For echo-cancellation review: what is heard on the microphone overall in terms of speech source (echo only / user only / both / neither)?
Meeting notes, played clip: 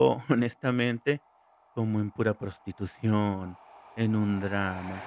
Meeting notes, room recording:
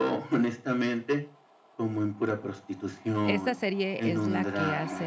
both